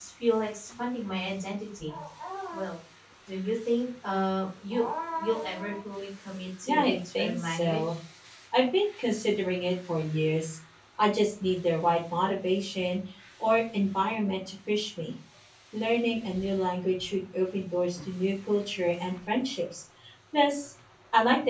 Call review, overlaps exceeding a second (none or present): present